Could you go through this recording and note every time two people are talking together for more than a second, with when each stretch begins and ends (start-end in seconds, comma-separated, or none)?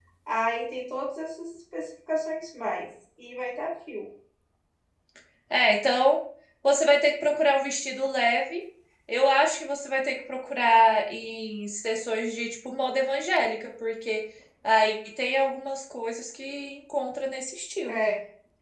none